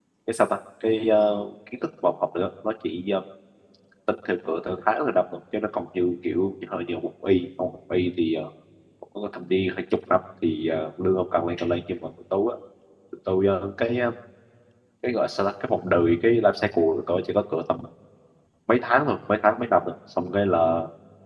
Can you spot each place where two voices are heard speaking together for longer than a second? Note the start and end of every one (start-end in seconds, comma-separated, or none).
none